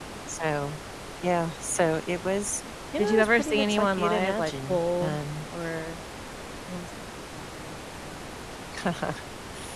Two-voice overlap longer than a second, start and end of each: 3.0-5.2

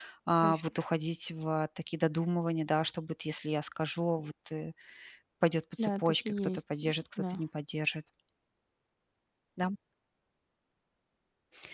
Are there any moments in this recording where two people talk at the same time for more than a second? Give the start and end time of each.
5.8-7.4

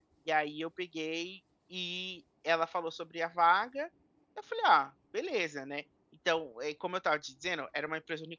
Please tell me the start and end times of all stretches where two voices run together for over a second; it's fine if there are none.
none

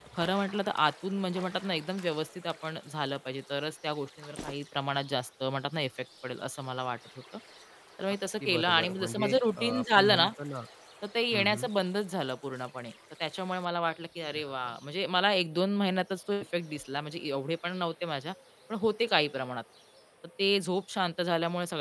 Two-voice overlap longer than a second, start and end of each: 8.4-10.3

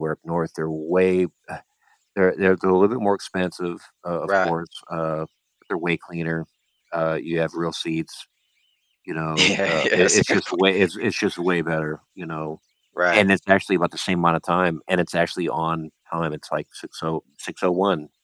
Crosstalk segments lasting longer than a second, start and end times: 9.4-10.6

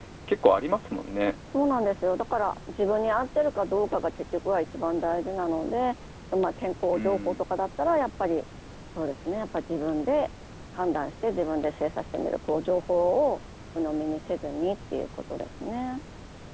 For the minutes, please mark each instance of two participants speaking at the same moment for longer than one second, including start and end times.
none

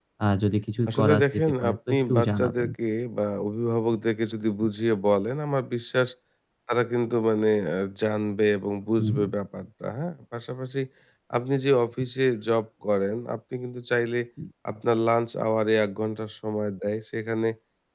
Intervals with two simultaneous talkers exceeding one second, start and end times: 0.9-2.7

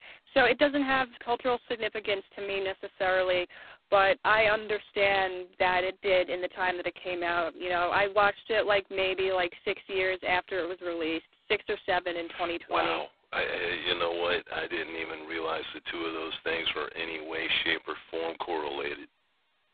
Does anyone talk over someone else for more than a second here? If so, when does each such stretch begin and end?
none

